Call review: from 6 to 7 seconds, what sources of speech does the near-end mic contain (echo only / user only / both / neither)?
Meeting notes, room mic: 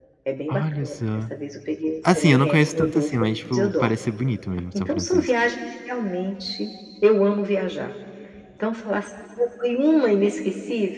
echo only